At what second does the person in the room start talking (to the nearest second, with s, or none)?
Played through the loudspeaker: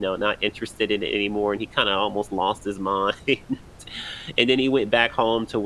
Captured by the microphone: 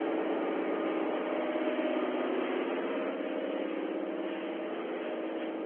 none